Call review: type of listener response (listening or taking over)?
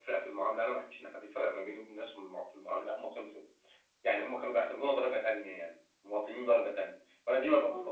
listening